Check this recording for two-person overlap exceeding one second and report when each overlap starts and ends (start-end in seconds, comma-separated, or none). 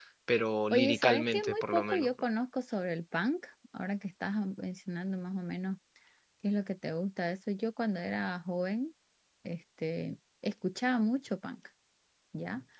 0.7-2.1